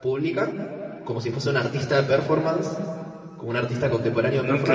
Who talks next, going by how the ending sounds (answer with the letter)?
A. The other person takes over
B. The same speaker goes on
A